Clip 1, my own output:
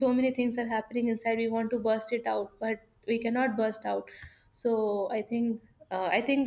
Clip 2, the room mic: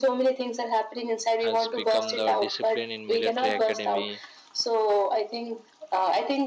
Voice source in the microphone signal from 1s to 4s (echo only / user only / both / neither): both